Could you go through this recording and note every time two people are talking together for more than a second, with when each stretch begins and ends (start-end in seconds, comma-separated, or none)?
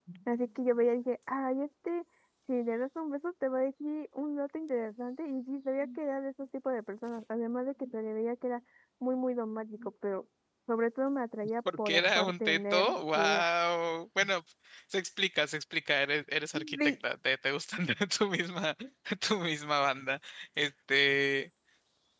11.8-13.5